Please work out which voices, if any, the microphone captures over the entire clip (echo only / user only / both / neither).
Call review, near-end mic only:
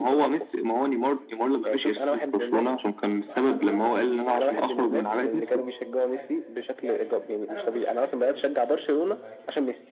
both